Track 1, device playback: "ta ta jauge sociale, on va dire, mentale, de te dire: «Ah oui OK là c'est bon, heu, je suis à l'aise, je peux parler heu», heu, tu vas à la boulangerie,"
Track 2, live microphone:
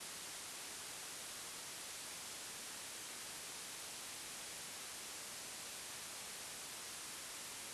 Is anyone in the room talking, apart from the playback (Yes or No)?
No